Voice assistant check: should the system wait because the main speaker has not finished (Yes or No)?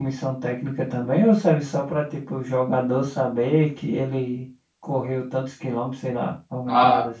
No